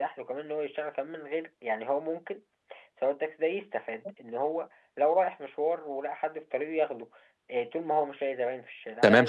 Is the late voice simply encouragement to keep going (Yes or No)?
No